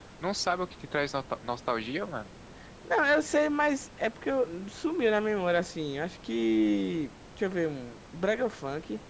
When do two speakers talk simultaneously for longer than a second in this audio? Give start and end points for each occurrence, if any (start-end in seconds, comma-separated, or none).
none